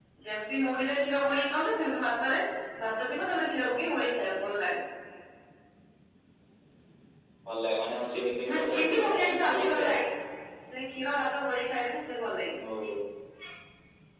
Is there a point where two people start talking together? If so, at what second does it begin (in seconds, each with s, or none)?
8.5 s